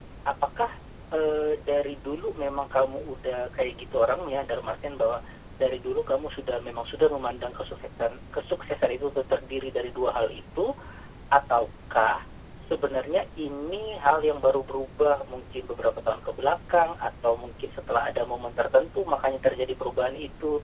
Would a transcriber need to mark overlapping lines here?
No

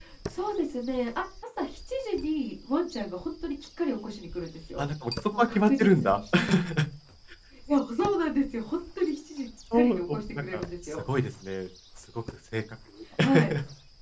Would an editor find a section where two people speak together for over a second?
Yes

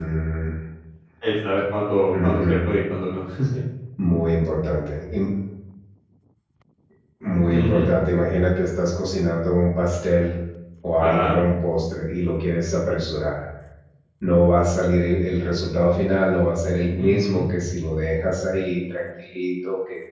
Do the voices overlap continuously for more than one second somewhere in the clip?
No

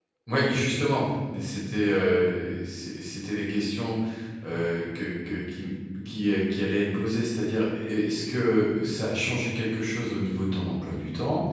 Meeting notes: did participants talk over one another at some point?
No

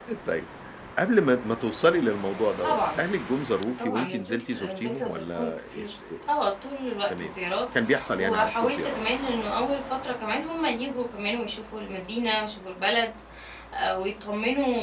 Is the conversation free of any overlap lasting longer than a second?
No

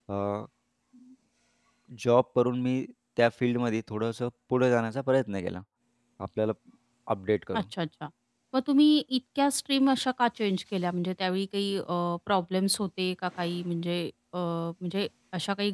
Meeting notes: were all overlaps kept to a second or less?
Yes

